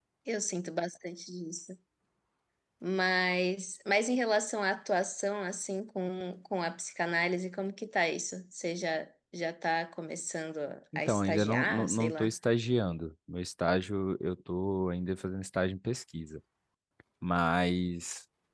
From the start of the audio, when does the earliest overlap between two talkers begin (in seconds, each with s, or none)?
11.1 s